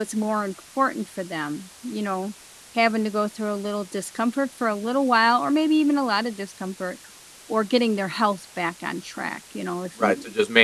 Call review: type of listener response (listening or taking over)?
taking over